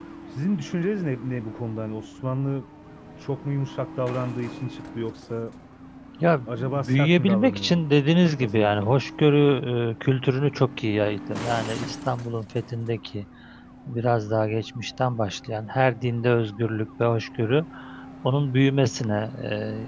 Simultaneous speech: Yes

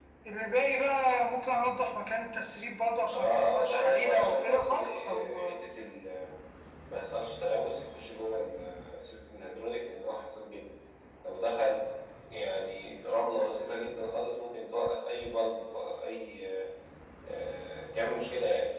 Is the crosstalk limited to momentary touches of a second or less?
No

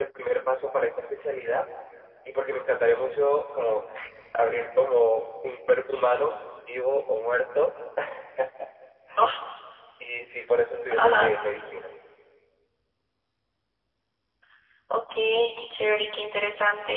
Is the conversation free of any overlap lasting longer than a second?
Yes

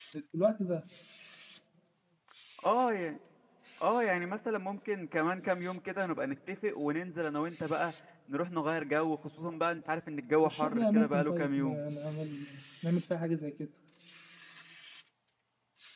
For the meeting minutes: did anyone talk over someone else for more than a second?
Yes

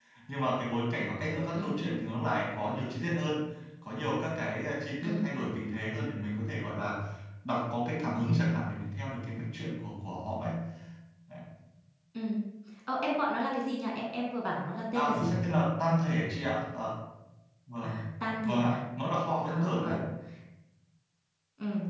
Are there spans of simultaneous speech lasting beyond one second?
No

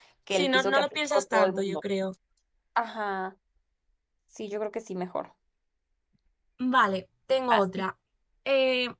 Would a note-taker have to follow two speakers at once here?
Yes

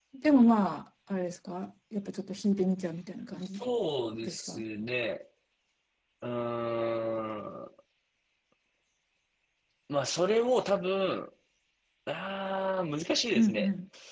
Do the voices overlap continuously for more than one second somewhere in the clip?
No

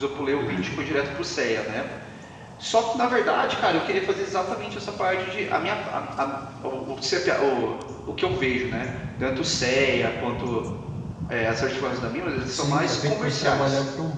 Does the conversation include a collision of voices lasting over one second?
Yes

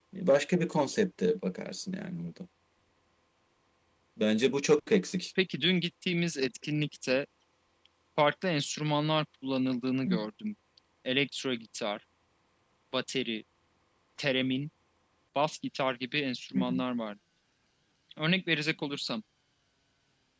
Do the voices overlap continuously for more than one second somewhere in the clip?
No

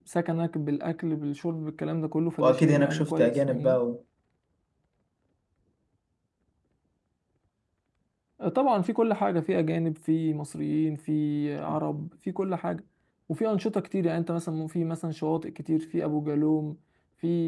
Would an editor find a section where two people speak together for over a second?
Yes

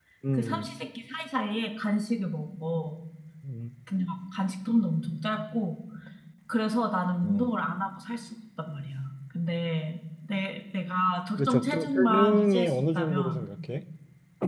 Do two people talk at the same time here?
Yes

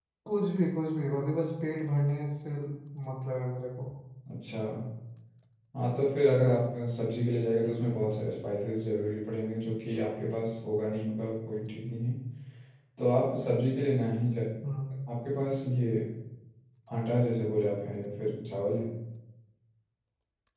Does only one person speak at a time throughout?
Yes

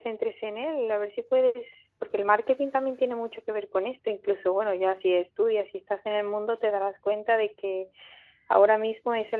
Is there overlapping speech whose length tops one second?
No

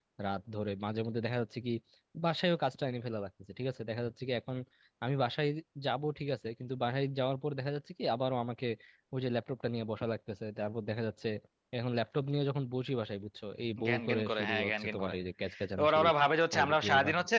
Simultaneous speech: Yes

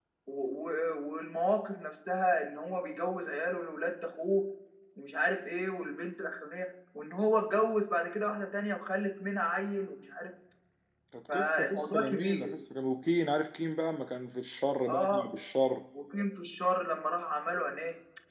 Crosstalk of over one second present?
Yes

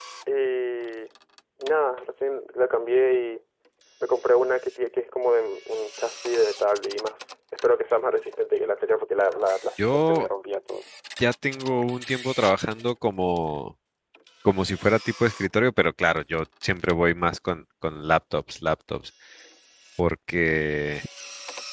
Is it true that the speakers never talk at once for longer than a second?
Yes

